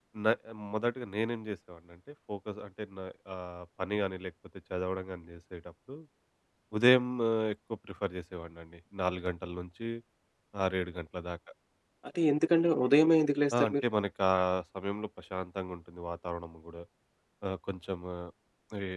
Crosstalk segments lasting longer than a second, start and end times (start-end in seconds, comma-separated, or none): none